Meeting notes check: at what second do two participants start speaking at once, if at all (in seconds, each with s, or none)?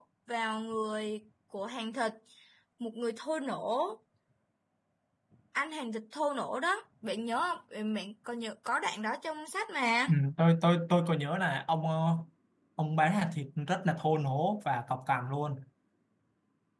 none